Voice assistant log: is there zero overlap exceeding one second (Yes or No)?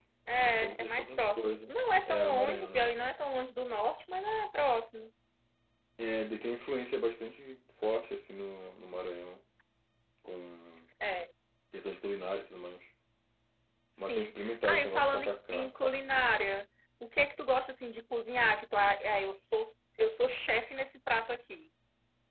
No